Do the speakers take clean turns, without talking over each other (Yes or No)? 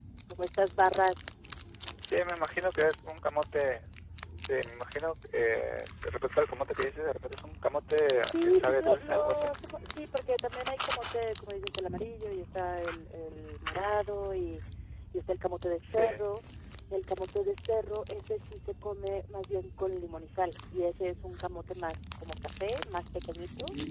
No